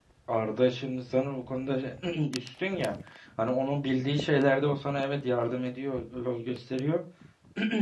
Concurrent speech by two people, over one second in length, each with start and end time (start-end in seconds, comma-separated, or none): none